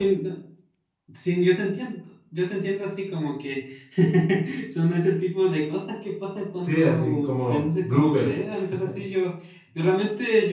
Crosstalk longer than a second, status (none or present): present